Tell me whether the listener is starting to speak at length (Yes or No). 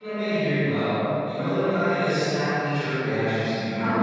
No